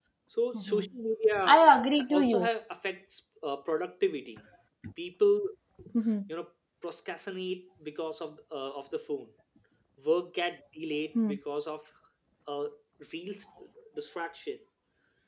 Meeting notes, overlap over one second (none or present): none